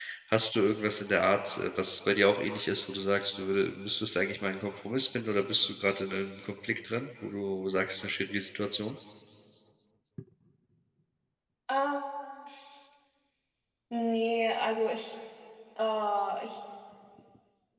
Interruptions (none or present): none